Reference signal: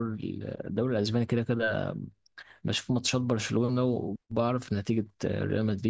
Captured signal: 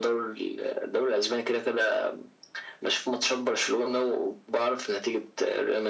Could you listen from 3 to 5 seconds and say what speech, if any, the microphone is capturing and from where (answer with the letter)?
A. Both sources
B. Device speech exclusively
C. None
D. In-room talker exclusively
B